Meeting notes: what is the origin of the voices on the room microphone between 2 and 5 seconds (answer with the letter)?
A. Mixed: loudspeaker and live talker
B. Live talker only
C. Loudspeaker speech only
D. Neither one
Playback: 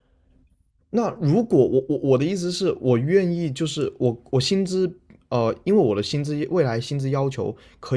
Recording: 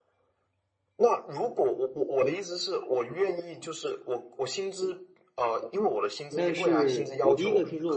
C